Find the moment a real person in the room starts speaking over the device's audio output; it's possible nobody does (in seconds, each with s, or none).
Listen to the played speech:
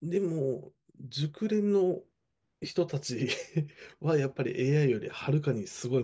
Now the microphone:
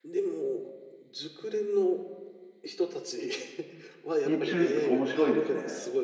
4.2 s